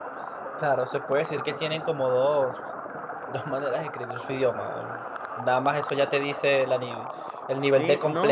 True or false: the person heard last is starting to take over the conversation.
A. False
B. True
B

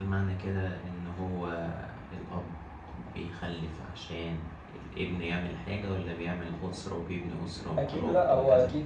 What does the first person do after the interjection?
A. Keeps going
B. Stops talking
B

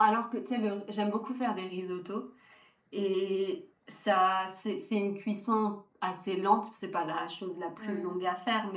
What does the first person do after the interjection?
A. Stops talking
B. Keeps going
B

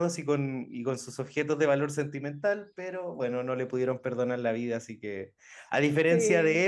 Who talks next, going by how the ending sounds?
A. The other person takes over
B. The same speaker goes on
B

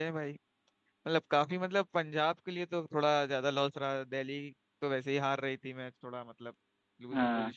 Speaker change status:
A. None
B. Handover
B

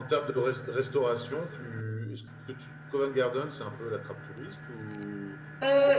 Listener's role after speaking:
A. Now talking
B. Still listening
A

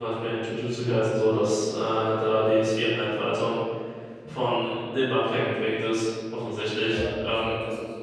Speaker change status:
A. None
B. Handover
B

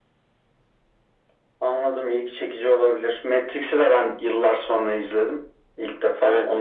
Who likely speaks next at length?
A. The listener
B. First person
A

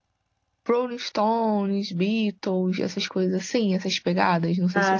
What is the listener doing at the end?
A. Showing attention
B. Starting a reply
B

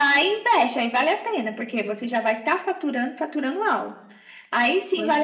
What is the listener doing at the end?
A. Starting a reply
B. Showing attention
B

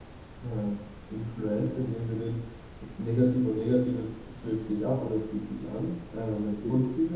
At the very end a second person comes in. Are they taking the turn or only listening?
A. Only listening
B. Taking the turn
A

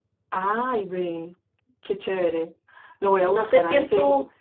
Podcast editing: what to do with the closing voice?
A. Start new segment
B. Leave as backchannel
A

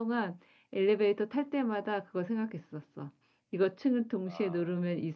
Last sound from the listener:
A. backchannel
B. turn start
A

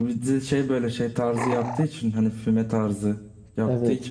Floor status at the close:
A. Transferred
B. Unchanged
B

